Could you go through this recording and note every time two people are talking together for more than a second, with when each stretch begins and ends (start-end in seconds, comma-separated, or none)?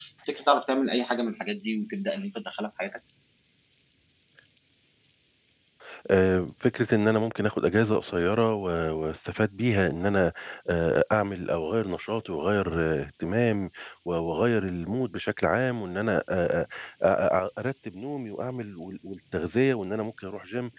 none